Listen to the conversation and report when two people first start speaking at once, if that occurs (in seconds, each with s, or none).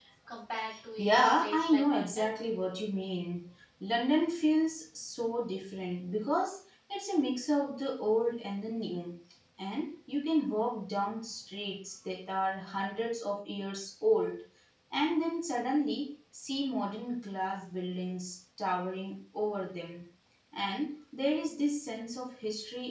1.0 s